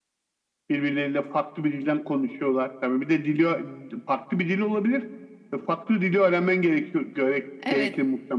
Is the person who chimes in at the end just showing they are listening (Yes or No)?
No